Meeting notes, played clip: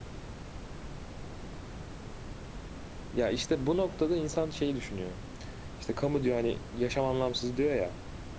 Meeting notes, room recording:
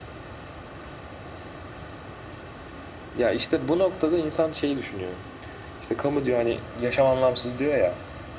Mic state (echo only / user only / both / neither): echo only